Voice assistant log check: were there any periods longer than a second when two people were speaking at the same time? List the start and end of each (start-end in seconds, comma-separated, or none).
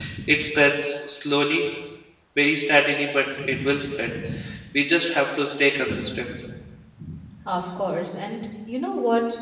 none